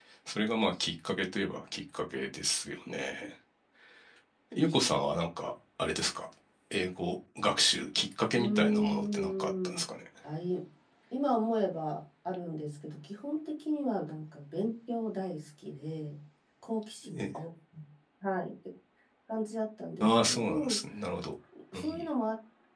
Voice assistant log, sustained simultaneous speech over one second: present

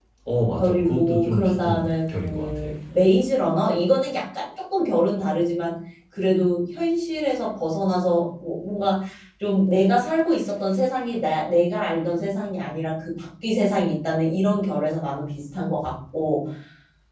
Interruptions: present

